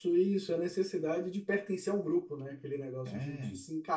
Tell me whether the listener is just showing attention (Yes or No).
Yes